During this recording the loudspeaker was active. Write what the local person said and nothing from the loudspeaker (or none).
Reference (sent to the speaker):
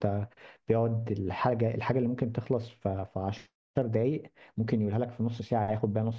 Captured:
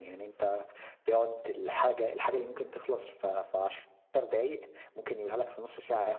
none